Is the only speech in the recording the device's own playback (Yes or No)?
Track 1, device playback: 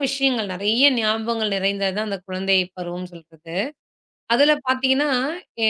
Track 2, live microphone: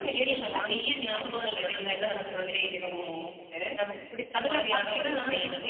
No